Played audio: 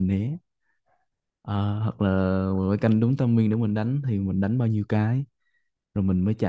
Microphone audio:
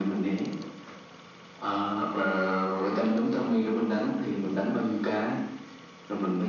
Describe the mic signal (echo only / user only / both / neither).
echo only